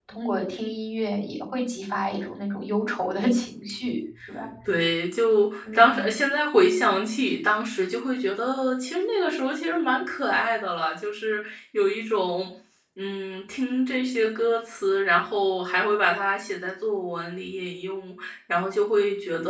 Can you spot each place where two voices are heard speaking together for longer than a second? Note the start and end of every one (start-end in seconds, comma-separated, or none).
none